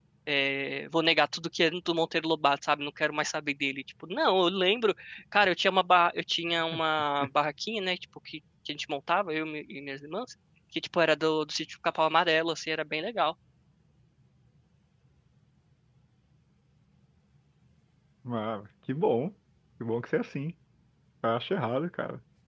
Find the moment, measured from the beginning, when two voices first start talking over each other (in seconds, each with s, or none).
none